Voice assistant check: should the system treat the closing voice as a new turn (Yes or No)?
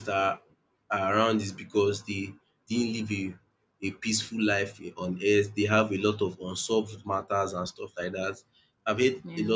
No